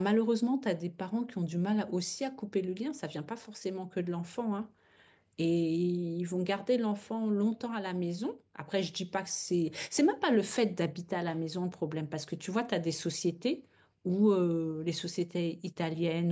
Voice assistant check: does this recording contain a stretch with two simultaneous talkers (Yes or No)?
No